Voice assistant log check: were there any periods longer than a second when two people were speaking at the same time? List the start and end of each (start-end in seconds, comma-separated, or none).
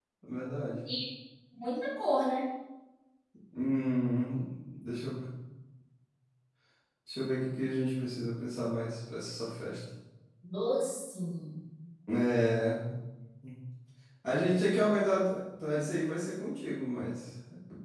none